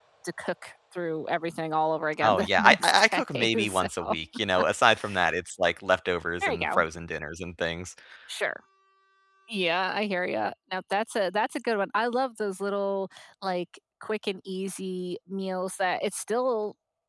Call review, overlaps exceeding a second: present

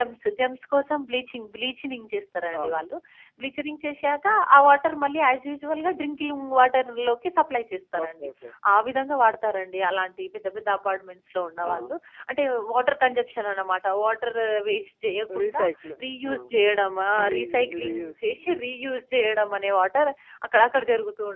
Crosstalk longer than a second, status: present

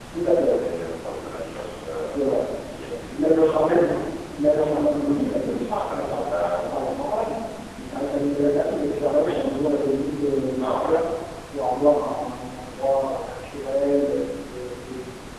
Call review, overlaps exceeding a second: present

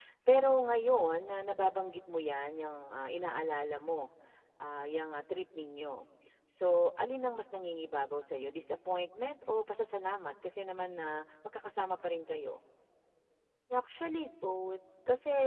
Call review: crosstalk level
none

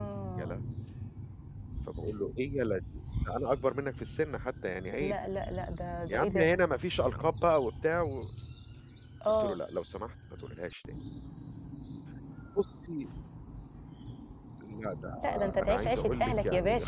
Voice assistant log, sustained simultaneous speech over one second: present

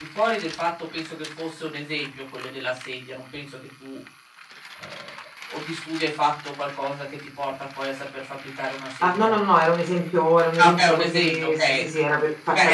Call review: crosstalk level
present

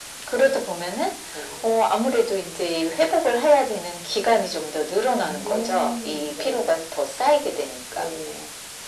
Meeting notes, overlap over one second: present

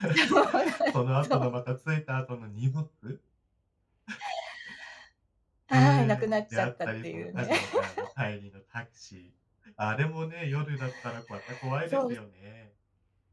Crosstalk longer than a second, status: present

